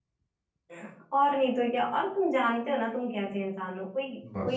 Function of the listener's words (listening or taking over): listening